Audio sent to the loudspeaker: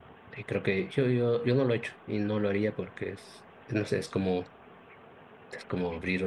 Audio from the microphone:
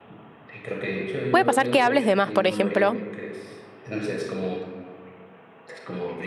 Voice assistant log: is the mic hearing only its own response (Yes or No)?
No